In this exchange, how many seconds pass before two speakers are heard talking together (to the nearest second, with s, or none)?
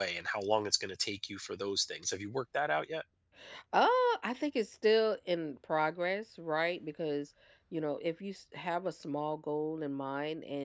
none